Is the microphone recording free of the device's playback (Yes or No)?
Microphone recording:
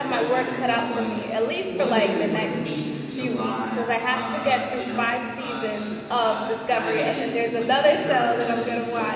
No